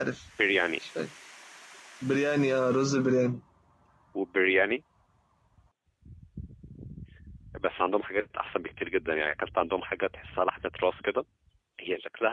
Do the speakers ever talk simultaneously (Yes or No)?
No